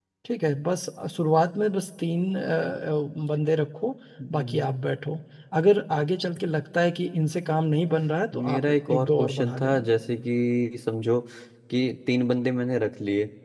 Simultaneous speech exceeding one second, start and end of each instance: 8.4-9.9

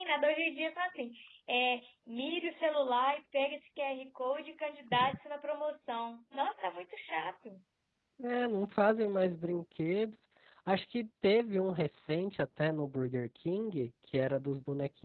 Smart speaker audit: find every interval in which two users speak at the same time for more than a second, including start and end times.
none

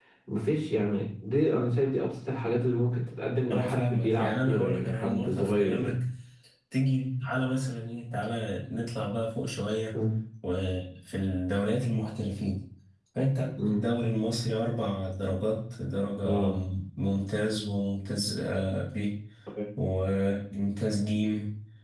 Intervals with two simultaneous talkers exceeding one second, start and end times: 3.5-5.9

